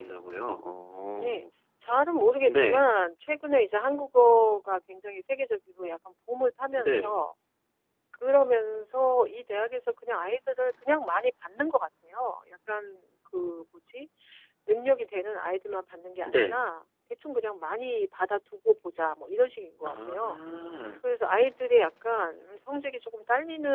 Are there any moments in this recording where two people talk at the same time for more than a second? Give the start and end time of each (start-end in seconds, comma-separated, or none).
none